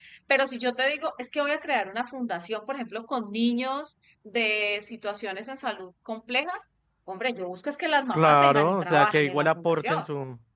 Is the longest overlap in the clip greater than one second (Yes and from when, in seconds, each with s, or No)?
Yes, from 8.1 s